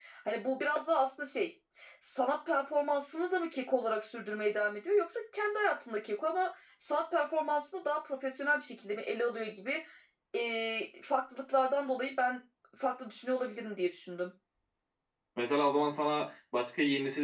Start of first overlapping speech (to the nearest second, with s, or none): none